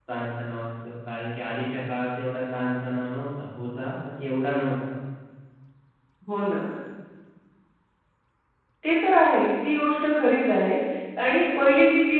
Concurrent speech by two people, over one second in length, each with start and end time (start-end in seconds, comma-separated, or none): none